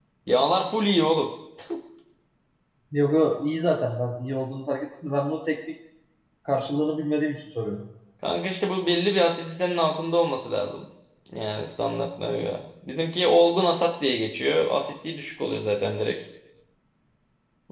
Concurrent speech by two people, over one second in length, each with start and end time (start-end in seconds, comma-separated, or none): none